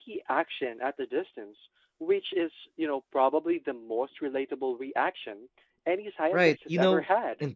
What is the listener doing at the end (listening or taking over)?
taking over